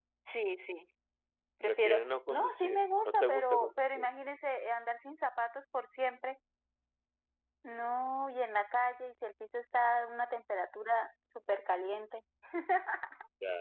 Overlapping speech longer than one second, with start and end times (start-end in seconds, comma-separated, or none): 1.6-4.1